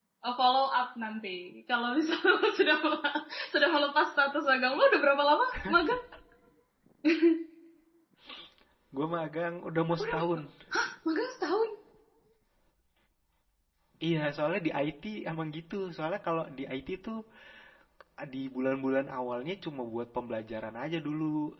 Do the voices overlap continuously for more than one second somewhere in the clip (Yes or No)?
No